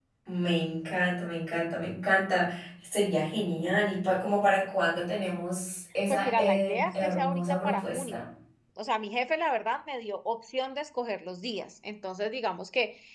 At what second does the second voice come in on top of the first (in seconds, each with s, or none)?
6.1 s